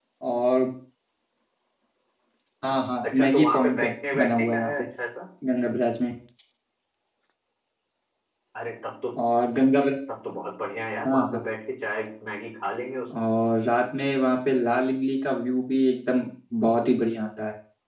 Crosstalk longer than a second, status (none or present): present